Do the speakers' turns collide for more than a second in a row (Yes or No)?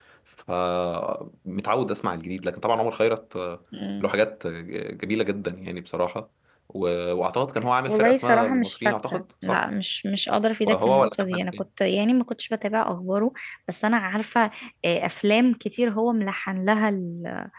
Yes